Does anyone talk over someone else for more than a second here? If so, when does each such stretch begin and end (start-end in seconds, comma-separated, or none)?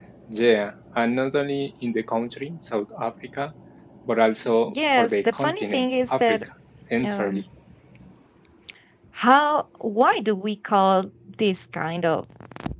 4.7-6.4